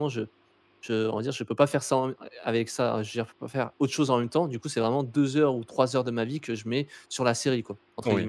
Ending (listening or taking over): taking over